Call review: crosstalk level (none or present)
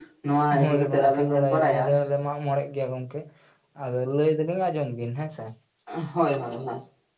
present